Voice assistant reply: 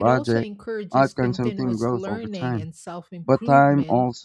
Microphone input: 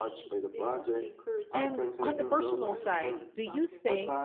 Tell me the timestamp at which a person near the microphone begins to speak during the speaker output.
2 s

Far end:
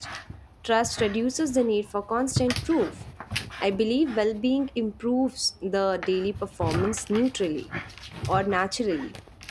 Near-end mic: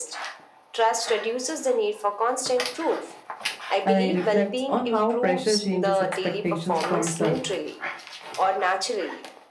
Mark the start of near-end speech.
4 s

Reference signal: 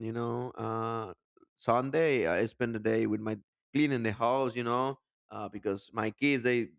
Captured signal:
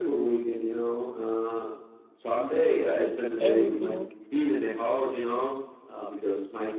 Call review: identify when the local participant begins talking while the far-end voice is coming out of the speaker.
3 s

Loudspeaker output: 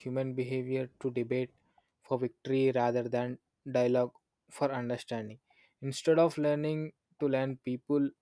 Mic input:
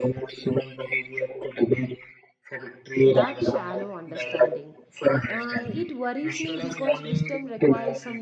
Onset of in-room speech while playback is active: 3 s

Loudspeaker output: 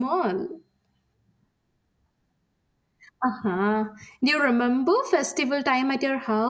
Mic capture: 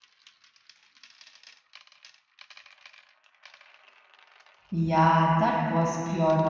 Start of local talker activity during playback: 5 s

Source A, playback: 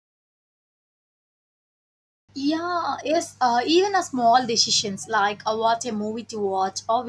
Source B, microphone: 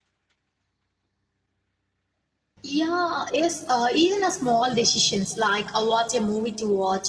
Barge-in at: none

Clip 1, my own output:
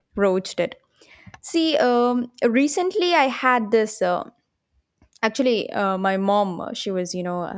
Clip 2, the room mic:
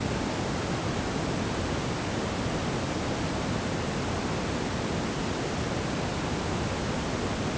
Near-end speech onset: none

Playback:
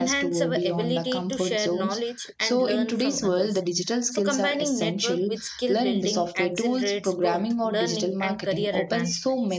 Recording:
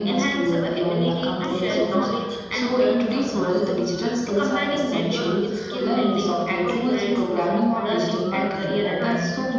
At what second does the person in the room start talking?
1 s

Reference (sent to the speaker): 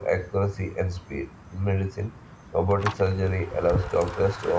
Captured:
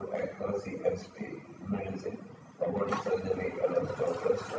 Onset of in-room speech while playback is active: none

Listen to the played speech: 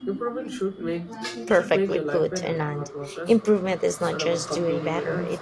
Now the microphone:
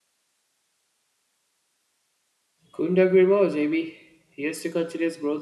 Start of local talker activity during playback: 3 s

